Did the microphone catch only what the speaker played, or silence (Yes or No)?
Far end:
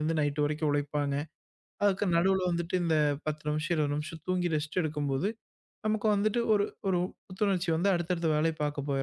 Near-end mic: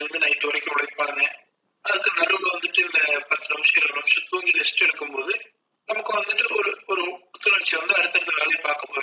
Yes